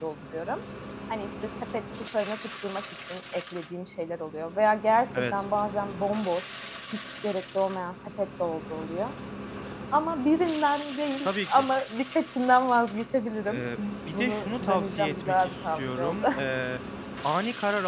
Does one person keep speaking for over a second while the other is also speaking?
Yes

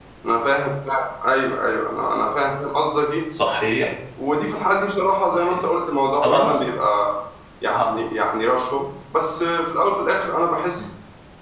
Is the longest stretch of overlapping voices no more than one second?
Yes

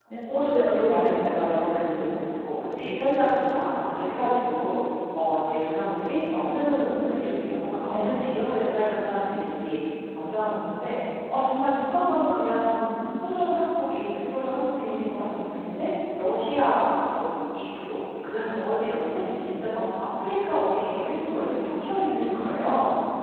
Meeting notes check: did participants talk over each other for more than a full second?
Yes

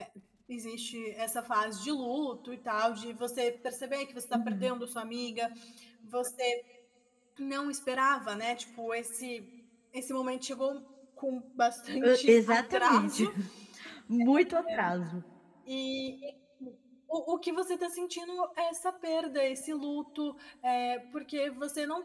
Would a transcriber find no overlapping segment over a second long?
No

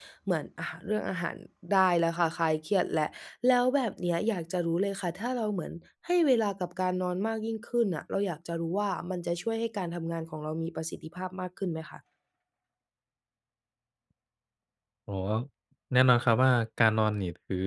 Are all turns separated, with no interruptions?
Yes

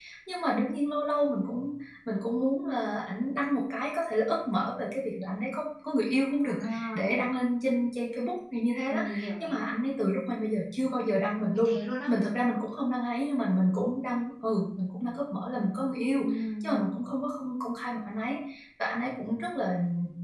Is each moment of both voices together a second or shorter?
Yes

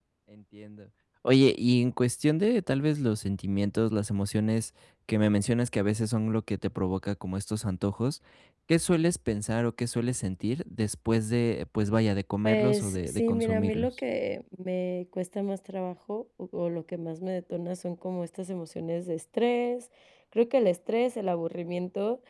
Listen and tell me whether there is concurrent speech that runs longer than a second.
Yes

